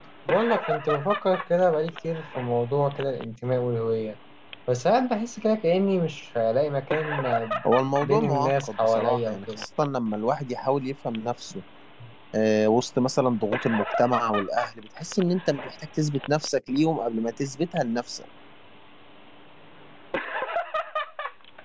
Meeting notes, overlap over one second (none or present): present